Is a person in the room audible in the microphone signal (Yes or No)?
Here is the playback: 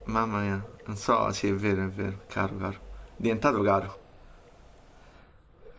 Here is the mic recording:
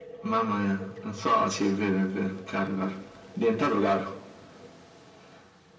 No